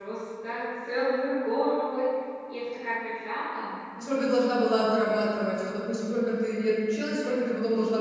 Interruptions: none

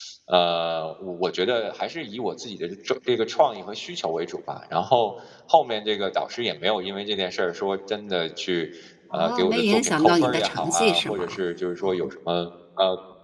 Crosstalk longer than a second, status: present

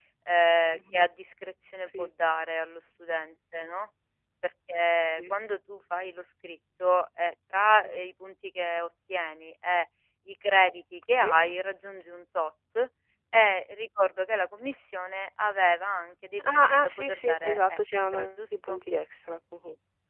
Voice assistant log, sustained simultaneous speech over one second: present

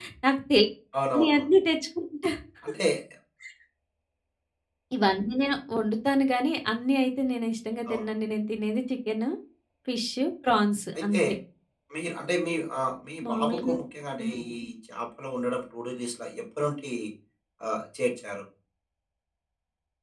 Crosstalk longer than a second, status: none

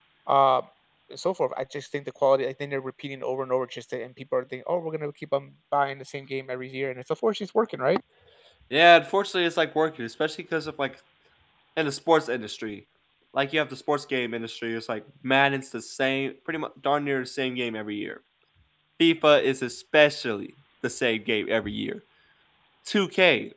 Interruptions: none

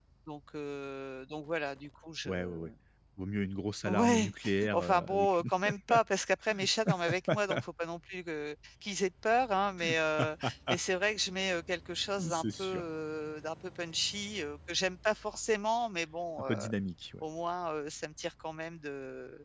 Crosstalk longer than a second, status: present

